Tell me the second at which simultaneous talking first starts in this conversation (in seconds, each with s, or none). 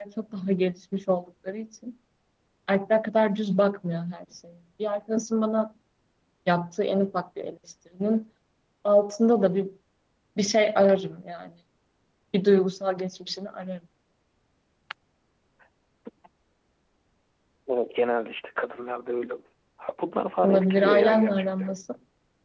20.4 s